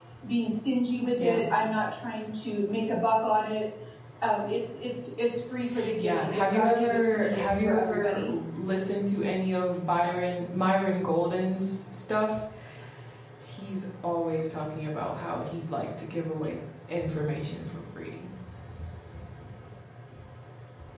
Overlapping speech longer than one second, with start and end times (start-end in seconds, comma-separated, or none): 6.0-8.3